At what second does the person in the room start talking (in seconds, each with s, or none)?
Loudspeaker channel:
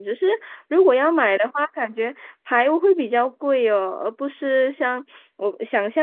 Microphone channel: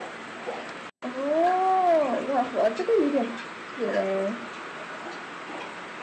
1.0 s